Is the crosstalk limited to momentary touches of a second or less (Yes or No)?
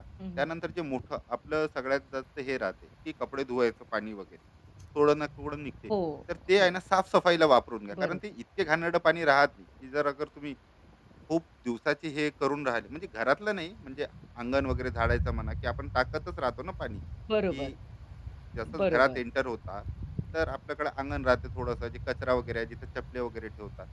Yes